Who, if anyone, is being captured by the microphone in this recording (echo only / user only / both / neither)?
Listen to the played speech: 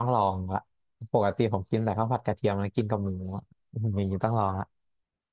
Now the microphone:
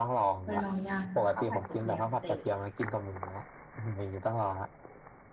both